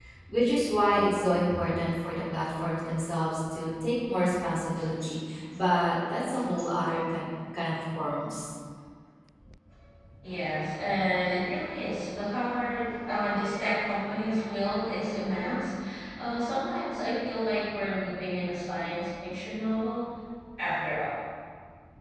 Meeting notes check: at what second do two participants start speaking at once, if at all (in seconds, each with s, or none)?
none